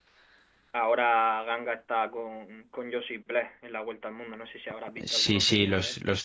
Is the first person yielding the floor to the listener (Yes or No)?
Yes